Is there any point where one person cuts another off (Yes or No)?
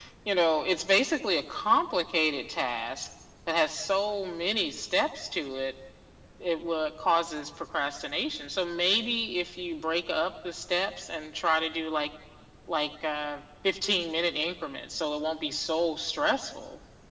No